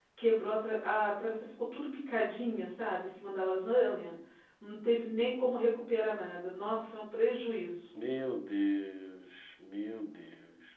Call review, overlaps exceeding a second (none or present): none